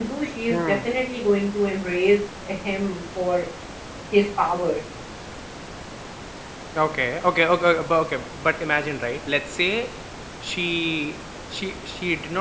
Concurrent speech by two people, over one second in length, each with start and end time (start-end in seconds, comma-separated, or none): none